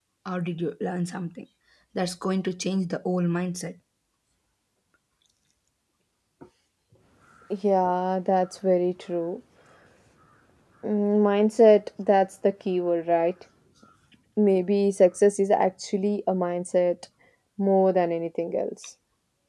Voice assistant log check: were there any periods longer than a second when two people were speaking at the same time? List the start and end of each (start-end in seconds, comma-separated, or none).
none